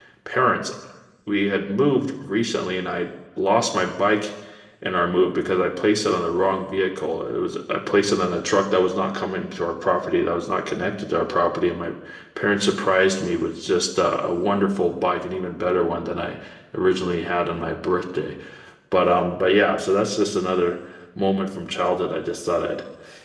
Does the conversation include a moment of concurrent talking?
No

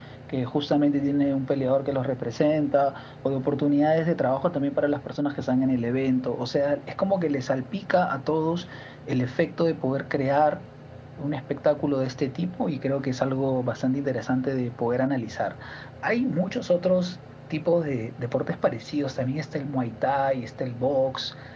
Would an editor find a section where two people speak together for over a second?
No

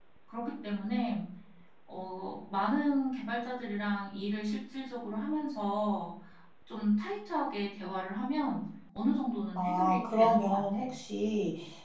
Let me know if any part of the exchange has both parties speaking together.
Yes, from 9.6 s

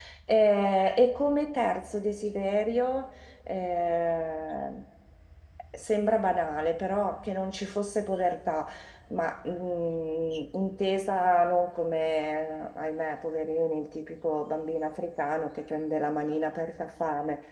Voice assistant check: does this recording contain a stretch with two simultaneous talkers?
No

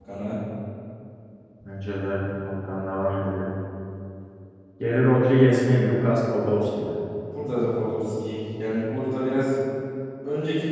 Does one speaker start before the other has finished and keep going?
No

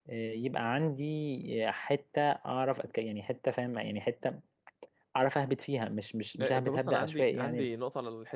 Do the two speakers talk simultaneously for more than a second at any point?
Yes, from 6.4 s

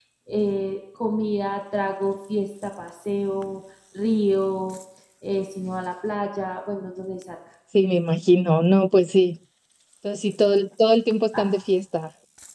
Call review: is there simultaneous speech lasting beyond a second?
No

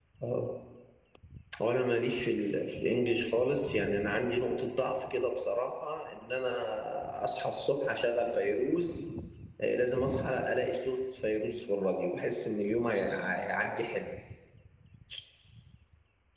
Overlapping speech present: No

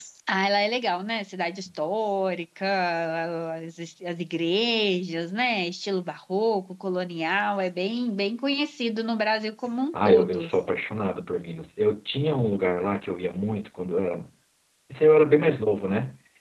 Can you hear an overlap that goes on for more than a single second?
No

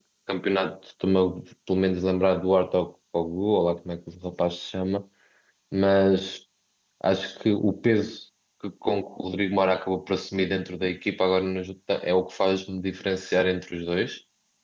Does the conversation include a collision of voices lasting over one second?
No

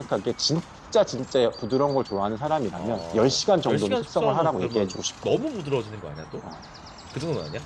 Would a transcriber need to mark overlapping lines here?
Yes, from 2.8 s

